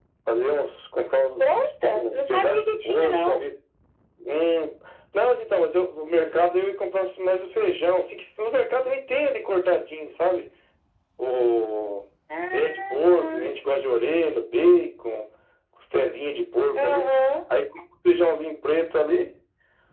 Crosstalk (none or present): present